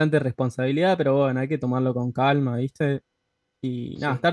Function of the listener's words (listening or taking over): listening